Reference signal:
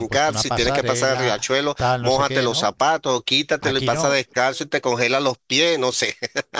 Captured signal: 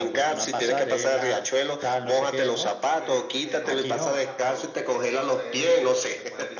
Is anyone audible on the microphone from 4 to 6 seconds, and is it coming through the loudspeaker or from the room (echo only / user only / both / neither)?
both